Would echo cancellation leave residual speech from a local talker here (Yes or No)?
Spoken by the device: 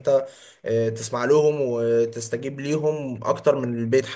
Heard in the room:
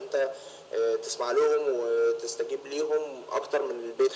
No